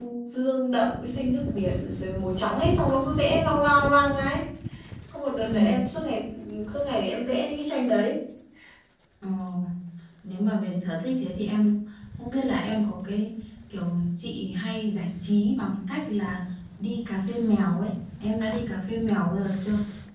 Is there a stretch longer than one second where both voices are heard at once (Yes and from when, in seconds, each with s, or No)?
No